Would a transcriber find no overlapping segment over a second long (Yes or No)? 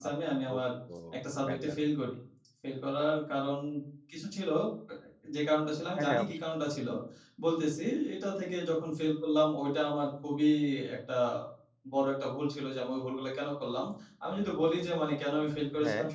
Yes